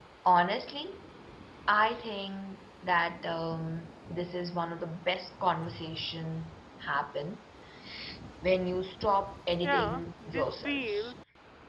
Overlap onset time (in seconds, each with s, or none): 9.6 s